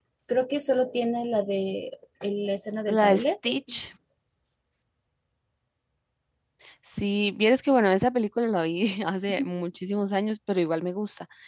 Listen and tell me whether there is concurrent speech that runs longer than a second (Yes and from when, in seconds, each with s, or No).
No